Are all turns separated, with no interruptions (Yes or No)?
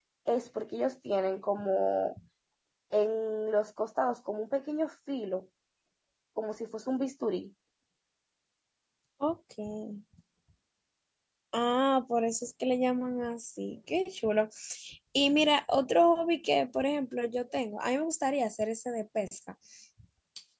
Yes